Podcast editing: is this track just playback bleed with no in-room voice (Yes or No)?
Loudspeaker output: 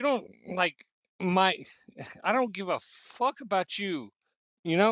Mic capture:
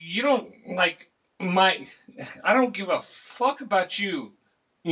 Yes